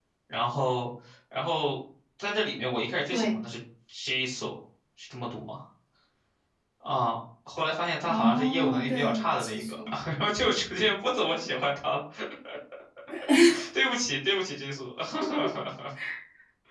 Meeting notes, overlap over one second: present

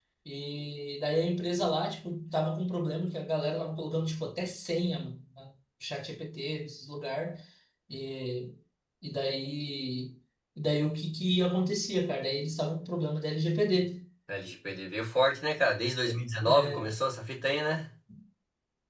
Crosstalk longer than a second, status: none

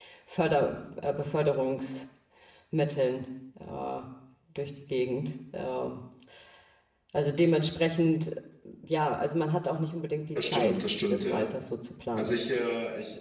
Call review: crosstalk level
present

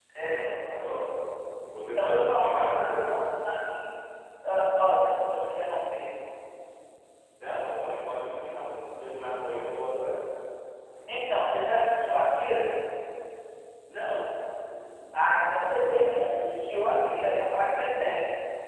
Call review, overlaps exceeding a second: present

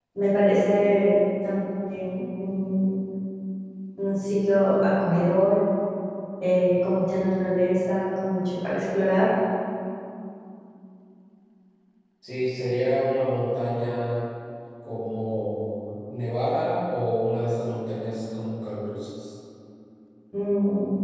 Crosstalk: none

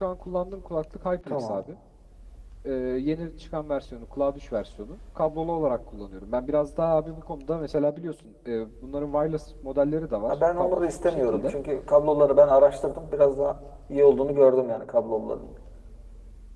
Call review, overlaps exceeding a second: present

